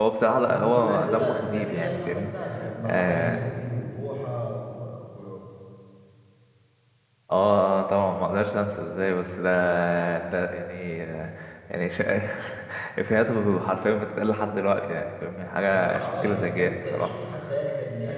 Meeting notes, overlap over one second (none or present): present